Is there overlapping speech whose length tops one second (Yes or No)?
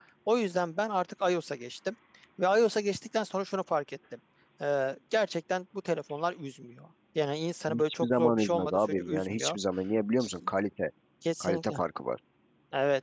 Yes